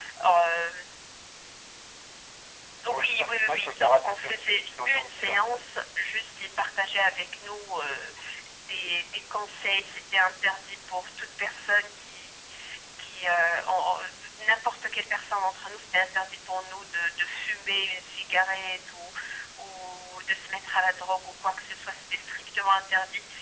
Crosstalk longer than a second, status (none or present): present